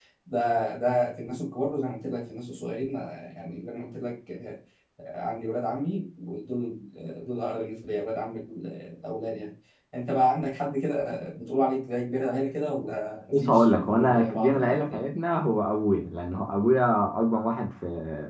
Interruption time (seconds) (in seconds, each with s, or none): 13.3 s